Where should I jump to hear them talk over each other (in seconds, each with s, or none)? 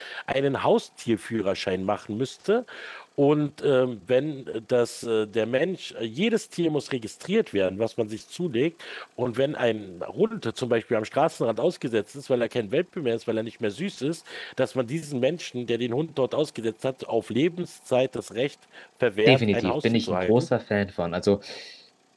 19.3 s